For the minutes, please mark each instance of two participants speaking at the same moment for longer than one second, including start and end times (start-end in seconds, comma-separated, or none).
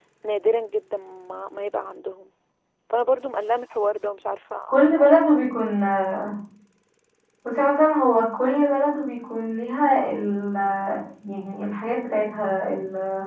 none